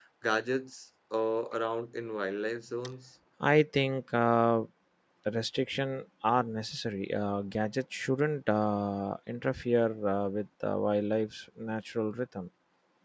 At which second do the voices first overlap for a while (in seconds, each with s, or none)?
none